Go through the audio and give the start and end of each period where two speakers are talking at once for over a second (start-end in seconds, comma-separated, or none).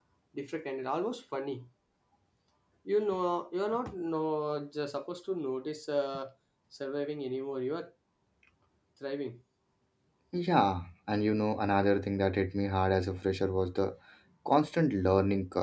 none